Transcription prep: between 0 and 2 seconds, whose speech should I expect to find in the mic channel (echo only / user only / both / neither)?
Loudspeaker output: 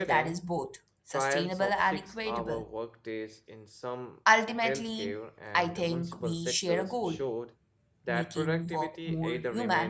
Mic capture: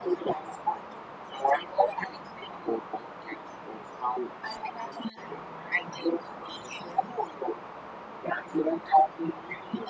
echo only